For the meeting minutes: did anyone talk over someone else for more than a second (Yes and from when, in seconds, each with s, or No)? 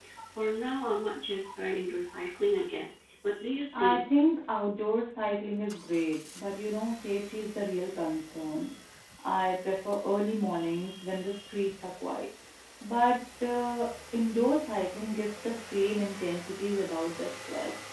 No